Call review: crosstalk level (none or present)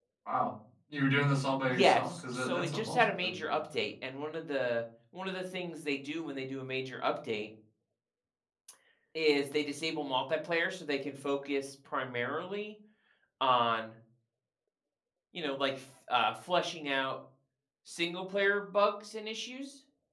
present